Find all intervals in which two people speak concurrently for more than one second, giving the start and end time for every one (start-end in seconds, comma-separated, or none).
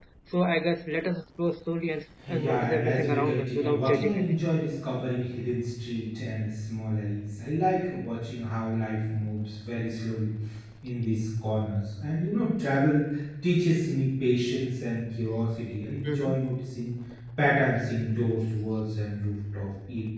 2.3-4.3